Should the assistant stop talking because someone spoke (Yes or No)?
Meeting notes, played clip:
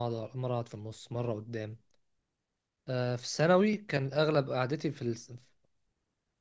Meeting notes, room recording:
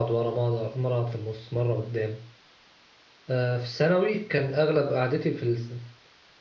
No